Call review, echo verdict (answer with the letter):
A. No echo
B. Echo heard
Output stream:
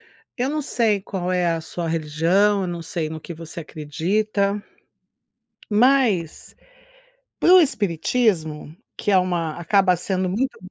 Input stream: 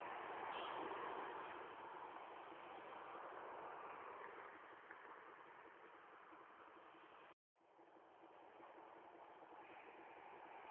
A